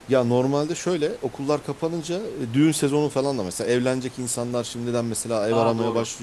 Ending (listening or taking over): listening